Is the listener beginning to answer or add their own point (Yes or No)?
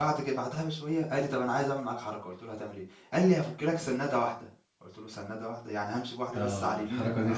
Yes